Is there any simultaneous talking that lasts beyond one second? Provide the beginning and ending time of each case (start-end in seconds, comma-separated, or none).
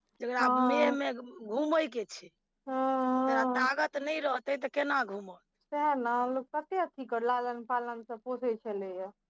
none